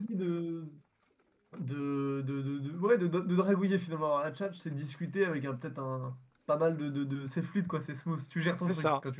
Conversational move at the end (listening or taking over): taking over